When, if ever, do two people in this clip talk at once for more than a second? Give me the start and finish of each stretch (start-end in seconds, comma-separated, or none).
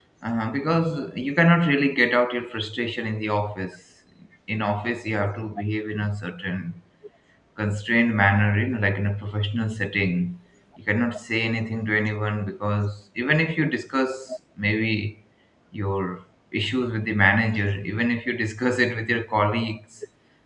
none